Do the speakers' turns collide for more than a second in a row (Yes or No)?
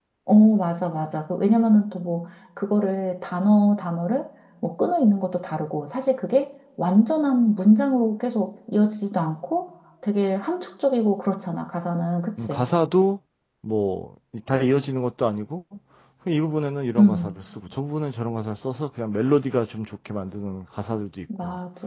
No